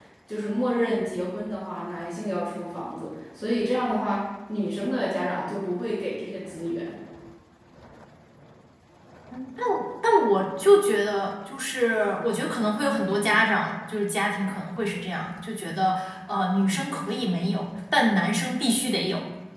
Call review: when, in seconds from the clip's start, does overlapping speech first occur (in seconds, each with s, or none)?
none